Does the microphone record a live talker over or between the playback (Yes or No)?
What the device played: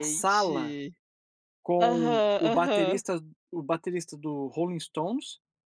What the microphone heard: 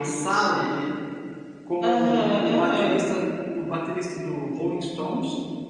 No